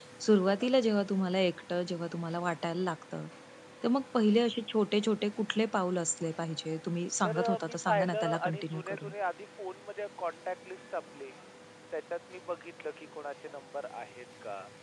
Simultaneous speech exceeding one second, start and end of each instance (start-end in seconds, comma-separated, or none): 7.2-9.1